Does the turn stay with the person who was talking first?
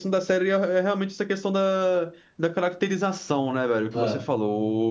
Yes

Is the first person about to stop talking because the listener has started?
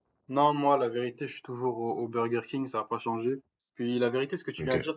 No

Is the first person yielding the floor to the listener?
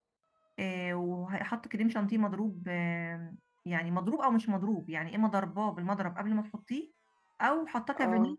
No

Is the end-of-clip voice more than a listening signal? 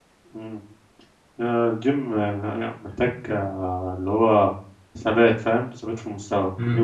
Yes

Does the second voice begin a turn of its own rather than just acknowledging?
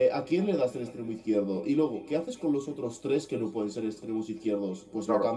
No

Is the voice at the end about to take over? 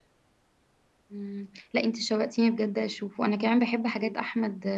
No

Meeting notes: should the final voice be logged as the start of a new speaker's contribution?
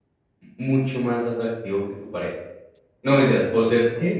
No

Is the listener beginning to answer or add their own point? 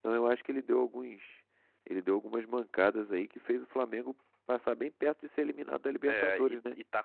Yes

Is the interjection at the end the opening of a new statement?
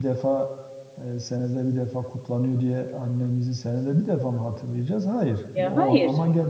No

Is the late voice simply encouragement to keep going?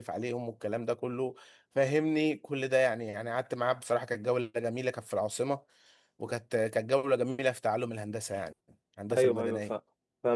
No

